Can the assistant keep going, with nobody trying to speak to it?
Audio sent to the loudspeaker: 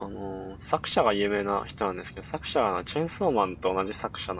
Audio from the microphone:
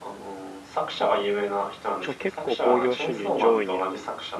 No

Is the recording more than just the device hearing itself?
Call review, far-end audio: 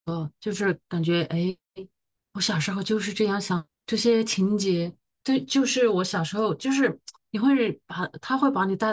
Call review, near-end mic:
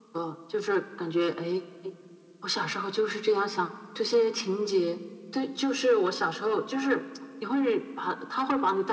No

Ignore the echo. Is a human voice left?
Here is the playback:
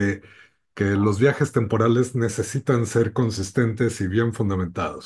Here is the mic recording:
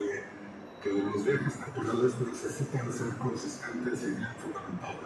No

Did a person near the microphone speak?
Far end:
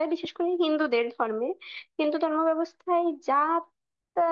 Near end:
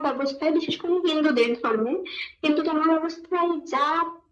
No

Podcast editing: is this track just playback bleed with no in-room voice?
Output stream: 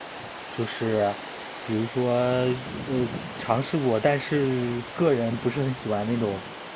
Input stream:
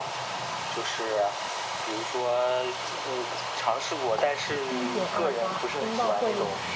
No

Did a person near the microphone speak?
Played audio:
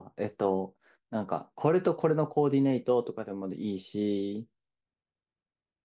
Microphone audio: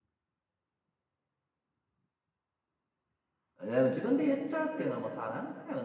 Yes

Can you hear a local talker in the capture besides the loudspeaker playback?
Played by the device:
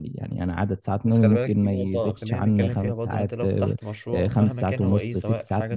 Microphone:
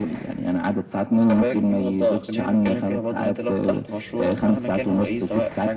No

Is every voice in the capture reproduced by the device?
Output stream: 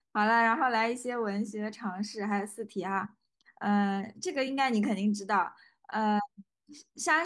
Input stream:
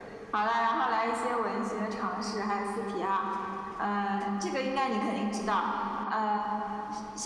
Yes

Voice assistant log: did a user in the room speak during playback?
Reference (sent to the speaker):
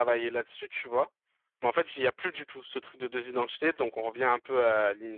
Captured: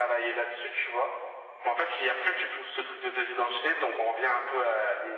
No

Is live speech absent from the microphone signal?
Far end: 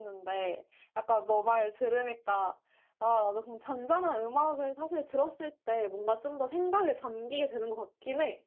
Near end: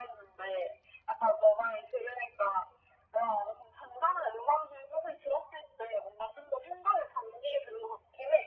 Yes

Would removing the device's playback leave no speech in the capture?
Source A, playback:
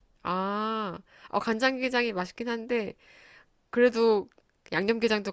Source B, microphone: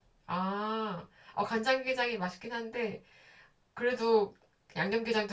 Yes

